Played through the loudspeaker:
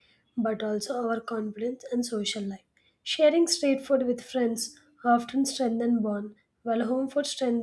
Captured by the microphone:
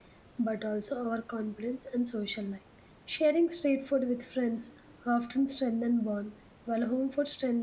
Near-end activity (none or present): none